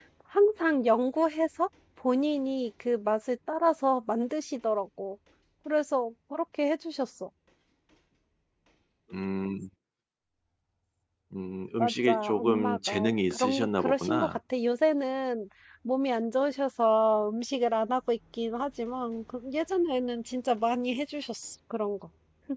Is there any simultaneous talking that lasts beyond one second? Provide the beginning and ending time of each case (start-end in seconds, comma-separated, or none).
11.8-14.4